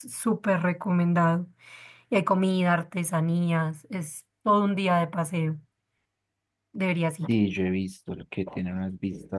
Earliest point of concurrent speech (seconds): none

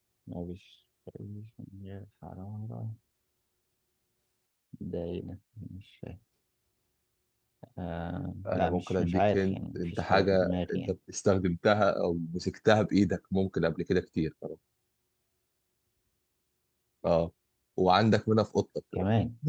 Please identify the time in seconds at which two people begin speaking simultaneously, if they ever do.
8 s

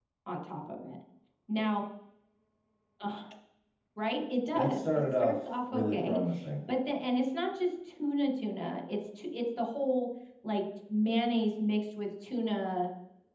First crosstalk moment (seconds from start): 5 s

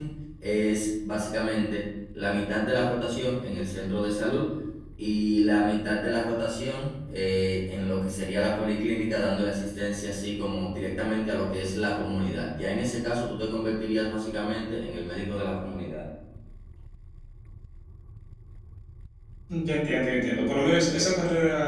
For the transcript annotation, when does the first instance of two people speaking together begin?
none

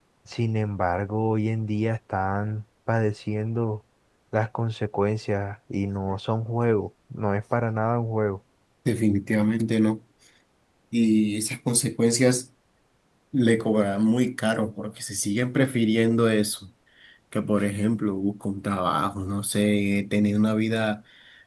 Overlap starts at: none

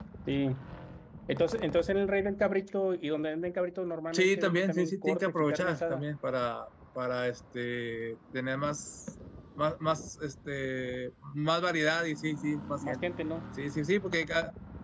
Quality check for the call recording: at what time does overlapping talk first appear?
4 s

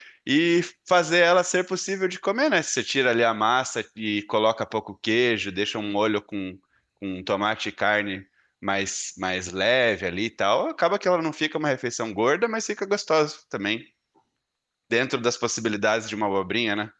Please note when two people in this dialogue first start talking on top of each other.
none

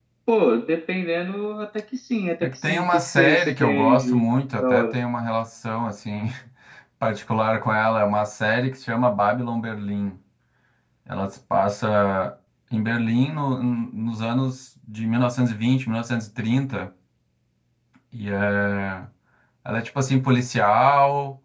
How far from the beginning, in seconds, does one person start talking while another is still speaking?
2 s

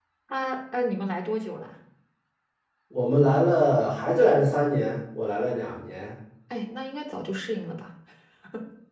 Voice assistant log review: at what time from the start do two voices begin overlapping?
none

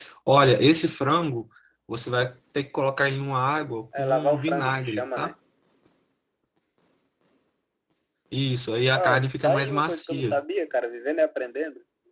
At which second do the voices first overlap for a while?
4 s

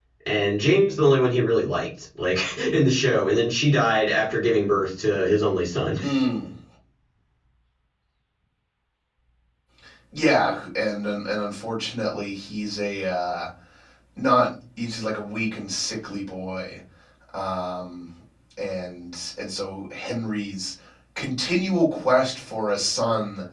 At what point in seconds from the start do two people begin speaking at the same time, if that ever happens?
none

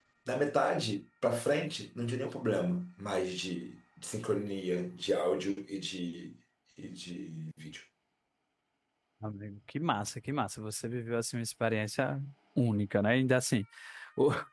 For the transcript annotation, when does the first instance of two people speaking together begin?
none

